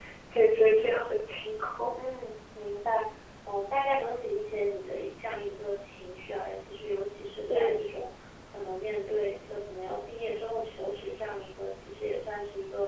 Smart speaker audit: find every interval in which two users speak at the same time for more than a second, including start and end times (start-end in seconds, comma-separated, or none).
none